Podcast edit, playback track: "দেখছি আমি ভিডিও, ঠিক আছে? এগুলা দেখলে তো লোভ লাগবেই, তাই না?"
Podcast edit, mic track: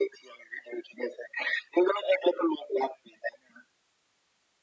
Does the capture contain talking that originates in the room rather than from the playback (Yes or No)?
No